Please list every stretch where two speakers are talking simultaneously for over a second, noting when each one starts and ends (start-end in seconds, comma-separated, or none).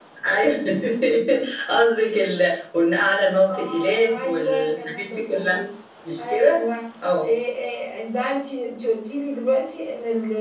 3.5-5.6